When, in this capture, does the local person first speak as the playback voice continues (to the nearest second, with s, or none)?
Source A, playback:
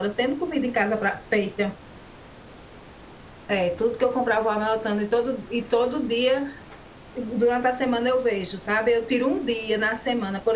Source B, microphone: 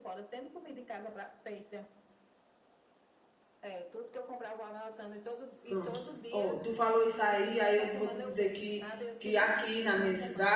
6 s